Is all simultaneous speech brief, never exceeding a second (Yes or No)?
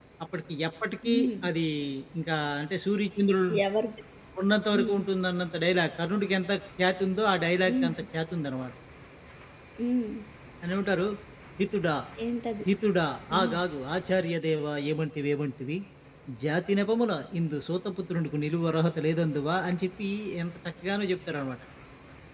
Yes